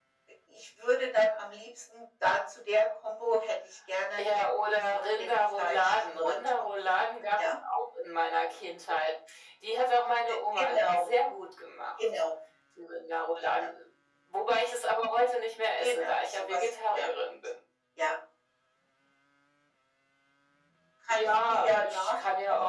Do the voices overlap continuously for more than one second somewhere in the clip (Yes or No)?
Yes